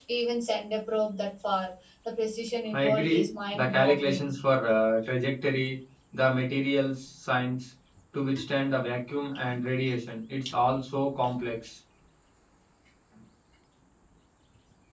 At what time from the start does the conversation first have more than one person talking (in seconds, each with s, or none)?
2.7 s